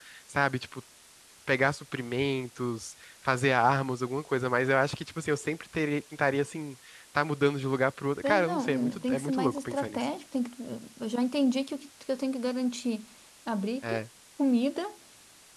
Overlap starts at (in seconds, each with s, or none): 8.2 s